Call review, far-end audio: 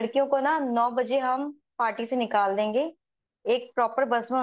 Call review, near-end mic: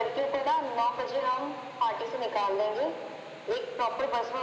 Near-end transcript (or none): none